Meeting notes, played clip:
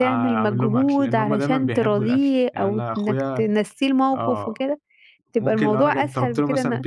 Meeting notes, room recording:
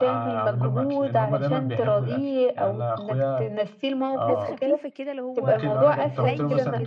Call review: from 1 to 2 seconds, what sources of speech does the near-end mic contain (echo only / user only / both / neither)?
echo only